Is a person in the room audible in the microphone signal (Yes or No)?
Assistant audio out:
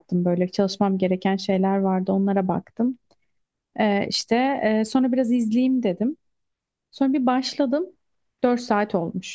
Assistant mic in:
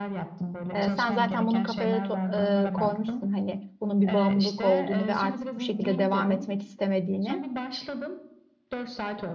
Yes